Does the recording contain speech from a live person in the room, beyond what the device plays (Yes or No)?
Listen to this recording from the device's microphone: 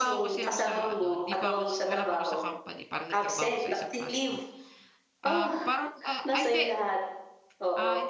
Yes